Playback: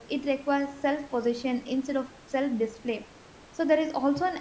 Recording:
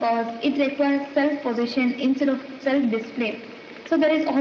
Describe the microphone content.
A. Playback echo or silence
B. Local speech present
A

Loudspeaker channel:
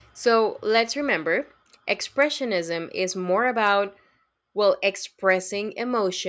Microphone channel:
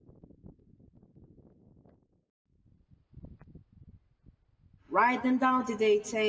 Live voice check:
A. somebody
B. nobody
A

